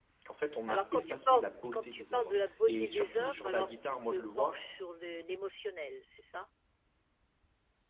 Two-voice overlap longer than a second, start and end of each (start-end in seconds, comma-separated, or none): 0.7-4.5